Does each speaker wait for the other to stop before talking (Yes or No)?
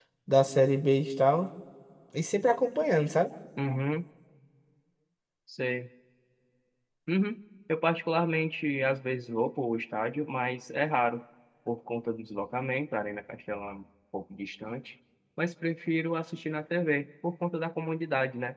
Yes